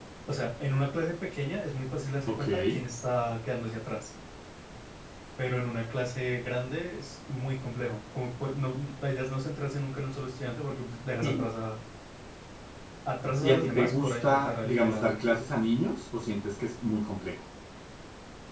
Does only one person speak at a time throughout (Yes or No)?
No